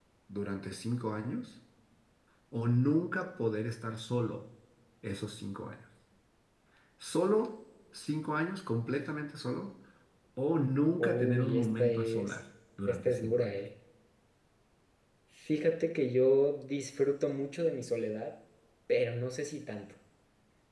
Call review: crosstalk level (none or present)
present